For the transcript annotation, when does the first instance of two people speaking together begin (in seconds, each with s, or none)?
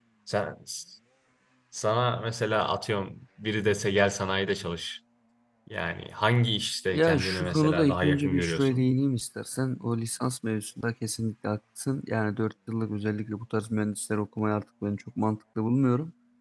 6.9 s